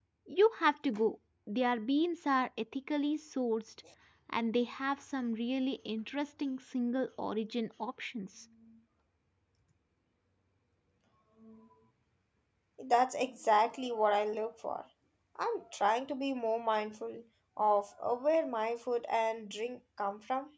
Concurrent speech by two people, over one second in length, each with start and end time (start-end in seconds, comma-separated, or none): none